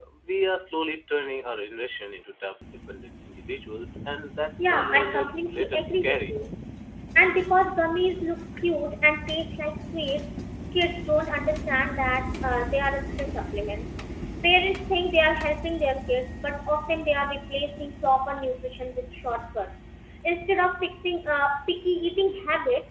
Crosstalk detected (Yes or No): Yes